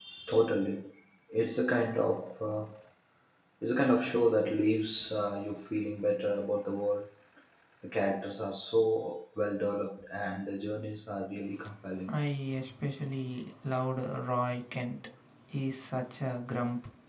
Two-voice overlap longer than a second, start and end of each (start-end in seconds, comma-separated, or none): none